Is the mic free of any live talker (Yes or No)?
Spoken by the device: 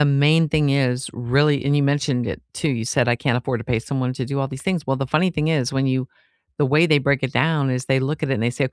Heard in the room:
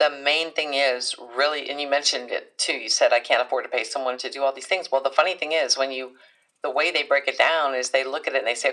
Yes